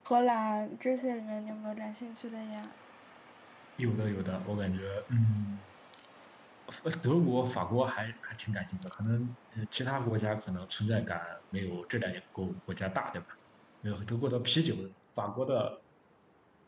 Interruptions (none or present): none